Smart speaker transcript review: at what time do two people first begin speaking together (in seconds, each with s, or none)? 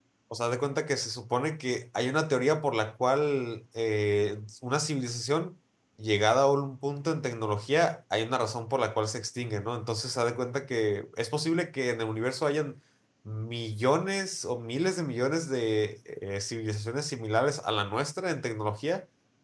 none